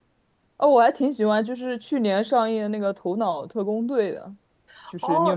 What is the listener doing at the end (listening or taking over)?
taking over